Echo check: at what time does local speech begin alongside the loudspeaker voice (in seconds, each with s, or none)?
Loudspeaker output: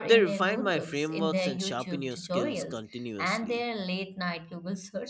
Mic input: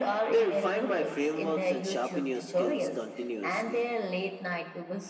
none